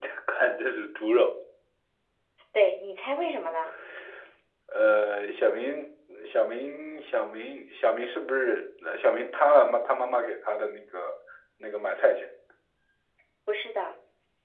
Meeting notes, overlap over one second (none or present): none